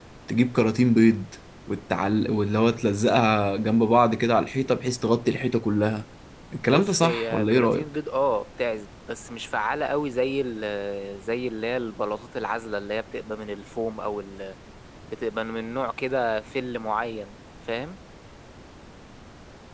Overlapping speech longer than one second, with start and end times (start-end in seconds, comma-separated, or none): 6.6-7.8